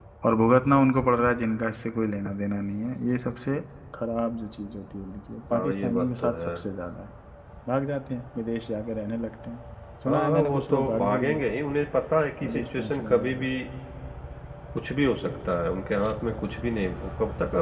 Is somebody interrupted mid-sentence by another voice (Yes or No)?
Yes